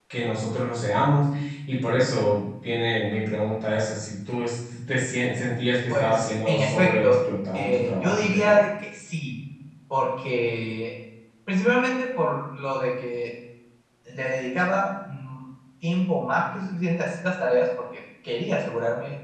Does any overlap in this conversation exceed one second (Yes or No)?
Yes